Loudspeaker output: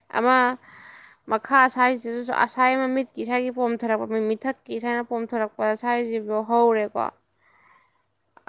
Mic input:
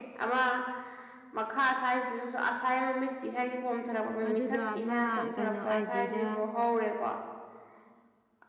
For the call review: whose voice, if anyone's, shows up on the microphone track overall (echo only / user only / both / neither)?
both